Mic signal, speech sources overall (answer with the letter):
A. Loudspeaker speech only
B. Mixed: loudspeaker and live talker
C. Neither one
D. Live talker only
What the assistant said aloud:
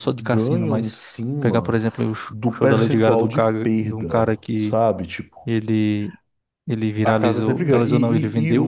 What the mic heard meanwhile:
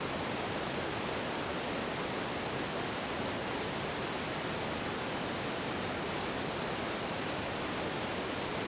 C